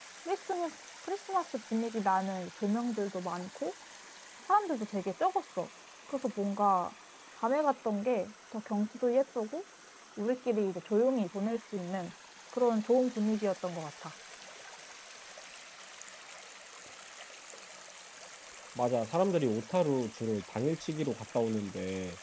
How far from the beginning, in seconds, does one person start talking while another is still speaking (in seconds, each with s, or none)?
none